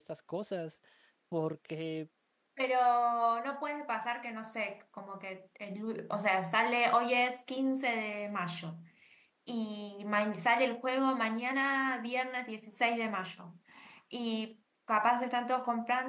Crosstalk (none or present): none